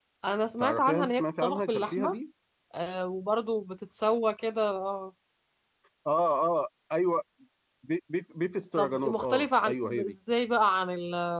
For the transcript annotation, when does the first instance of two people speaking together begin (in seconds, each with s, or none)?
0.6 s